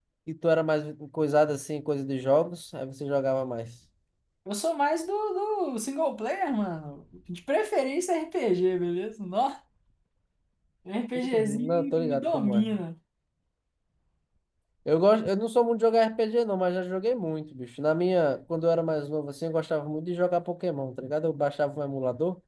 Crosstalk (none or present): present